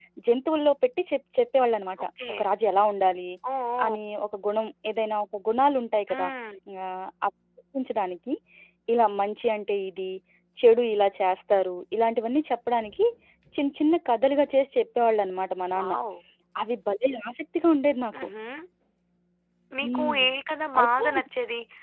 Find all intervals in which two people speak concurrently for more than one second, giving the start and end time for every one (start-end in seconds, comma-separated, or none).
none